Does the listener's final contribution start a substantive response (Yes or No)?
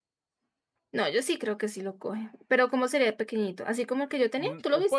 Yes